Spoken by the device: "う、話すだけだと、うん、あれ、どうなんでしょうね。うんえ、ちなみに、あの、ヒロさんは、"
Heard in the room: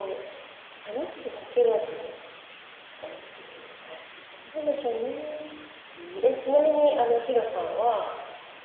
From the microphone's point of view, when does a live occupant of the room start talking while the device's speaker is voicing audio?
none

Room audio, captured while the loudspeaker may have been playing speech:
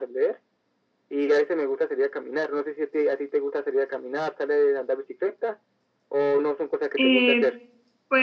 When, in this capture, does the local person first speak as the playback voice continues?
7.0 s

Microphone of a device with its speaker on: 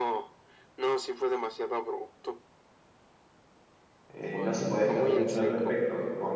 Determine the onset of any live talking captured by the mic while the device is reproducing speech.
4.1 s

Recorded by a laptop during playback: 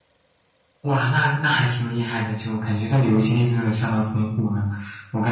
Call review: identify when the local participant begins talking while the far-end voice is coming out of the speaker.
0.8 s

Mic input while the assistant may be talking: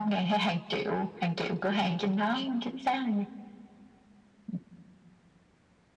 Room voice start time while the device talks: none

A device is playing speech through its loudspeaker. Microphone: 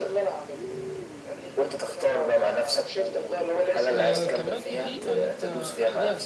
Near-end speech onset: 3.9 s

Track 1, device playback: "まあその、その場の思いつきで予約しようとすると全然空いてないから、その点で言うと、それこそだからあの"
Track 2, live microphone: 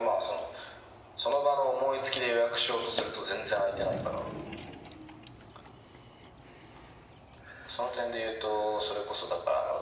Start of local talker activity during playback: none

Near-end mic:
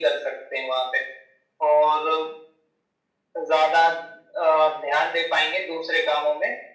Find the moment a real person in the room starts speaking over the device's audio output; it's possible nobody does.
none

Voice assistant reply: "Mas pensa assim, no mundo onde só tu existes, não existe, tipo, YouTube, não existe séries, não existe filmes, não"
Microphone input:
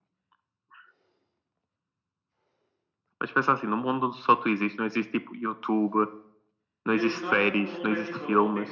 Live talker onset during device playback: 6.9 s

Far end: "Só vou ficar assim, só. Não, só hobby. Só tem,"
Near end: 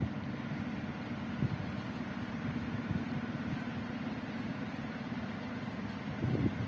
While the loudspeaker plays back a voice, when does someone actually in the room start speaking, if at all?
none

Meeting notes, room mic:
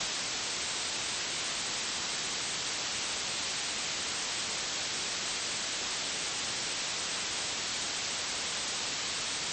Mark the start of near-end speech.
none

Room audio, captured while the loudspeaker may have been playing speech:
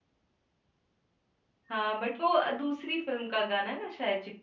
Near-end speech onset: 1.7 s

